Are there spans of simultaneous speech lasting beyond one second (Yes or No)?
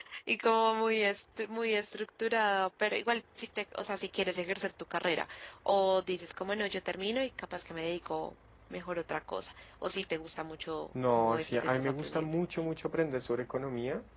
Yes